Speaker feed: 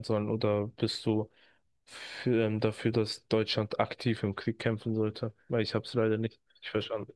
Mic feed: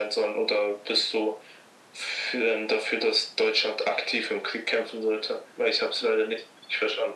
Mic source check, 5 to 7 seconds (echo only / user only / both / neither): echo only